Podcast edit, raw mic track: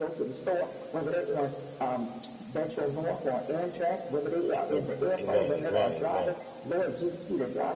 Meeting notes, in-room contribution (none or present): present